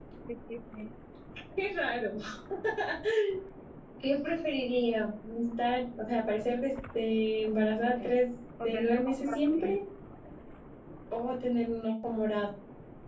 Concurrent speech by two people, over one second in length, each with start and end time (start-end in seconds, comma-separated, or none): 8.6-9.8